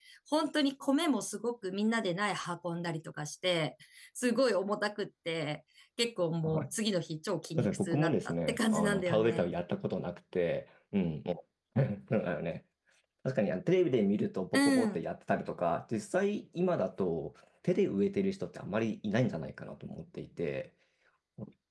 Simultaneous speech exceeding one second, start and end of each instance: 7.6-9.5

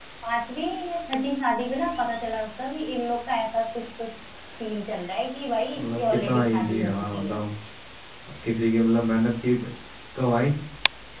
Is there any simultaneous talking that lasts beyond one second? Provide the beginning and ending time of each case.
5.8-7.4

